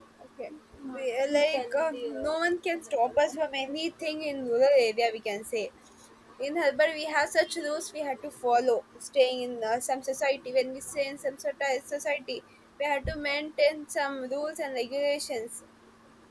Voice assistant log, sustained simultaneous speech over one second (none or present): present